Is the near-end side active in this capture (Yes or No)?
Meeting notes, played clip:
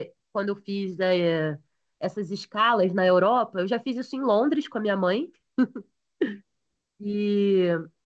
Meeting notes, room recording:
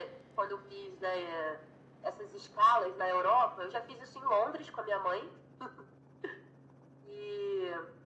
No